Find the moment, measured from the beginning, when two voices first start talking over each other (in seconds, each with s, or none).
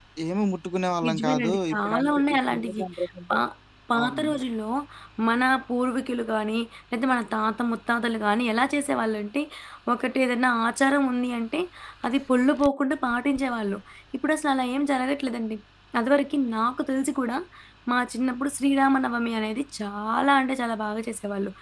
1.1 s